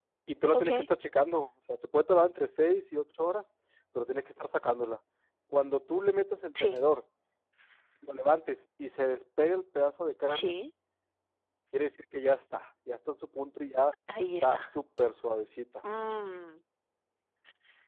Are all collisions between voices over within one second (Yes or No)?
Yes